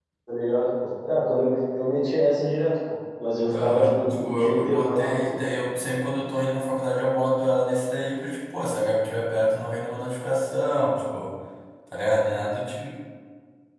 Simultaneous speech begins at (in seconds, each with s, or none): 3.5 s